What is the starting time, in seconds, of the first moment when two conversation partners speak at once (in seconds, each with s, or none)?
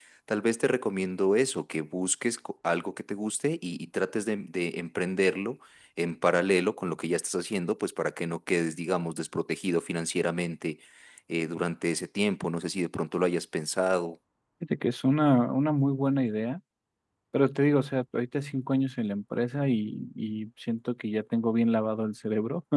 none